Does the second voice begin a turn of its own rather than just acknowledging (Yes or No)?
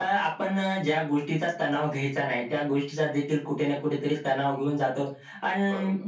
No